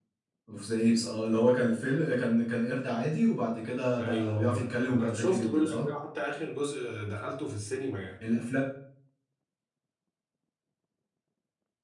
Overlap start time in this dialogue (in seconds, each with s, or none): 4.0 s